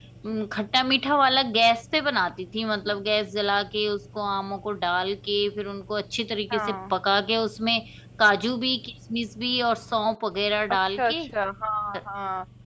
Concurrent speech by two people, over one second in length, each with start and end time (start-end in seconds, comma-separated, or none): none